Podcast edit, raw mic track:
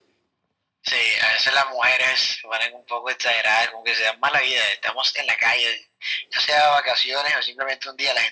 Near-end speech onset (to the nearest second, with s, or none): none